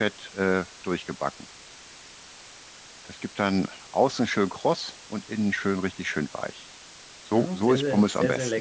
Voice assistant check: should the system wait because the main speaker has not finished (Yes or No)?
No